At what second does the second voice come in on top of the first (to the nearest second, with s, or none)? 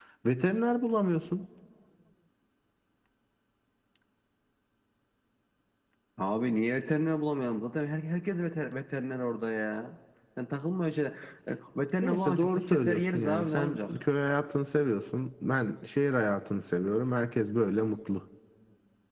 12 s